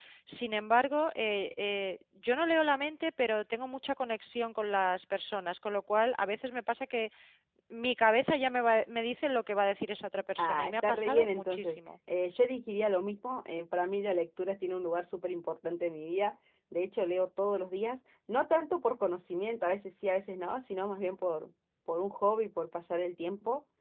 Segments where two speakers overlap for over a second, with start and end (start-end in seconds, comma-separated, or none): 10.4-11.8